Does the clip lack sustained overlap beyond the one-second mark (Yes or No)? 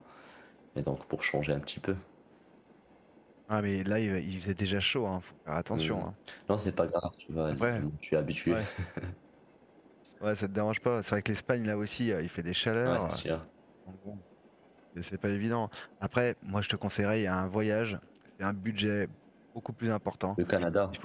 Yes